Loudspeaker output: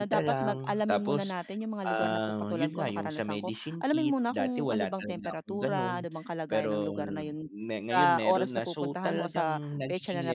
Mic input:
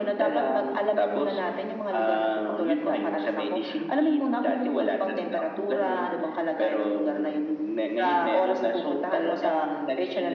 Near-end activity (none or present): none